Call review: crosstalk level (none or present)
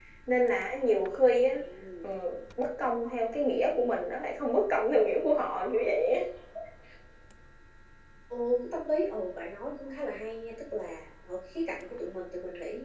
none